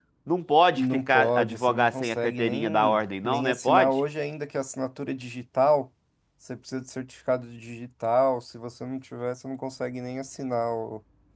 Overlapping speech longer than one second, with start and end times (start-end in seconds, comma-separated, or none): 0.8-3.9